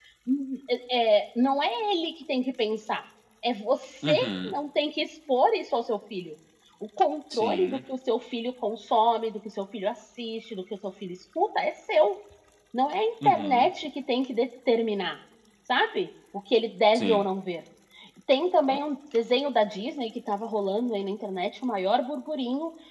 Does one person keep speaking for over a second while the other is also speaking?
No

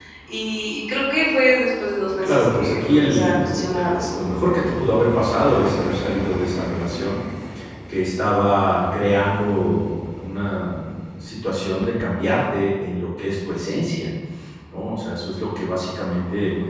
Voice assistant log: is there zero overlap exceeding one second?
No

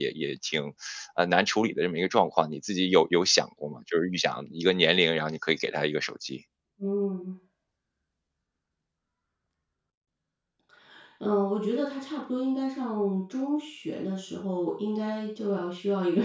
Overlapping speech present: No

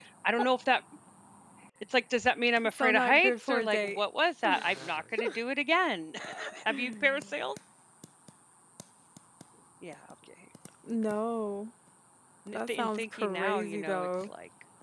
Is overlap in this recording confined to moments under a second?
No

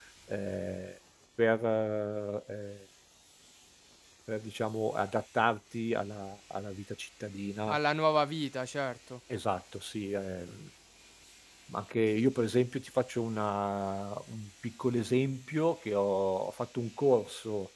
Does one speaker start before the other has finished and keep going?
No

